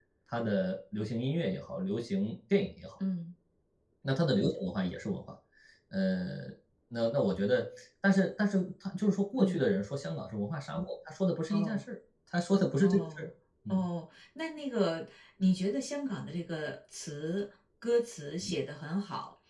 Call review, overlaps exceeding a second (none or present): none